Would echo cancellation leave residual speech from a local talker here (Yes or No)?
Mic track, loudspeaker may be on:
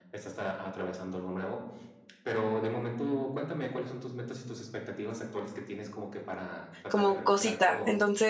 Yes